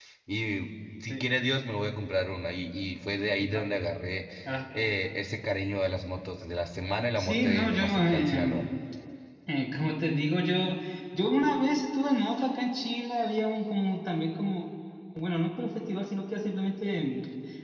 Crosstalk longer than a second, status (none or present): present